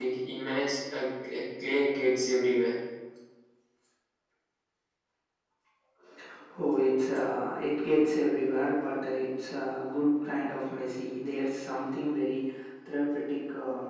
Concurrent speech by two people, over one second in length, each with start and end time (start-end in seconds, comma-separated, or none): none